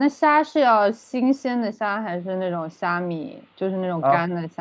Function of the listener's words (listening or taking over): taking over